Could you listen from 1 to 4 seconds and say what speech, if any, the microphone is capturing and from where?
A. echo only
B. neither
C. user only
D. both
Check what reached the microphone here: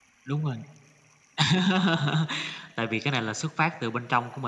A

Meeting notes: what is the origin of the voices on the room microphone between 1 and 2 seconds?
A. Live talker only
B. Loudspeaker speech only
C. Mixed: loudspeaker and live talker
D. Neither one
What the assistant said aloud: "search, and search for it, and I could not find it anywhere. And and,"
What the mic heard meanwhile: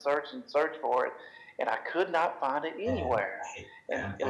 B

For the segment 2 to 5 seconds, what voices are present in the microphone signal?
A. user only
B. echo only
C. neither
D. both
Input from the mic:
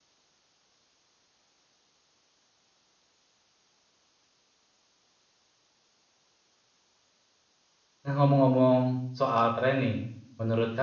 C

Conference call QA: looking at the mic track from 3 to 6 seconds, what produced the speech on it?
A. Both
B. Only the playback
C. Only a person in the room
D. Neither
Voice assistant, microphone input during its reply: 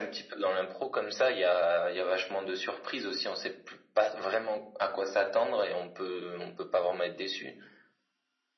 B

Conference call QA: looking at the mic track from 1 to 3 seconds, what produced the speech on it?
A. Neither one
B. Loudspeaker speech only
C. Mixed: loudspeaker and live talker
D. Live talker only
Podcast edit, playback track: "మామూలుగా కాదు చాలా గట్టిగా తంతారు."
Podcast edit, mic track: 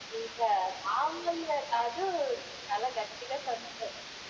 B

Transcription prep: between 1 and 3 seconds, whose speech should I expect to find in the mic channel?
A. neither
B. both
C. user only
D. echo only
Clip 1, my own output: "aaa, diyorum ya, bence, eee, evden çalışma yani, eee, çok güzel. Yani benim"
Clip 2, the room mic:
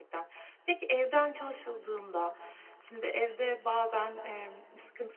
C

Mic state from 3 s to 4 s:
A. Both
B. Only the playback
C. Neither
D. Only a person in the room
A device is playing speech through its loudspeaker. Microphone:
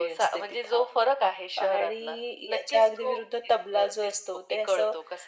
B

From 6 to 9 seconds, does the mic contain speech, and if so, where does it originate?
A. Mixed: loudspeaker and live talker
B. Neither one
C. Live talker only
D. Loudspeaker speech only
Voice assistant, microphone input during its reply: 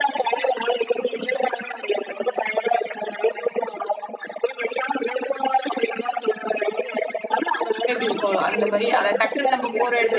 A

